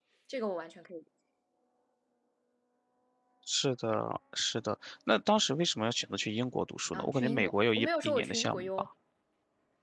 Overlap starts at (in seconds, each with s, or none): 6.9 s